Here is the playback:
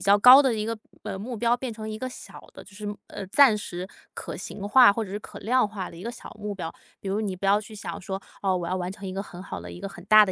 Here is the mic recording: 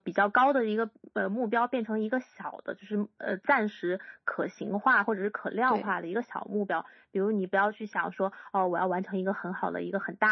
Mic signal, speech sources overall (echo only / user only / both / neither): both